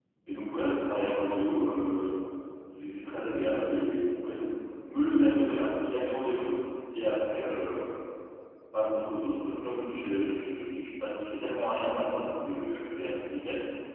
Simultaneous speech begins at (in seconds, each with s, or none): none